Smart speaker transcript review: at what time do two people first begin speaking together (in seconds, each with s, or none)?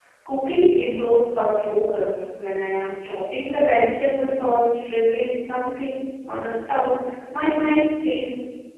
none